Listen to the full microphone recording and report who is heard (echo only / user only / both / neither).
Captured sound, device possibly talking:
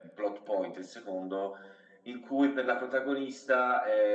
echo only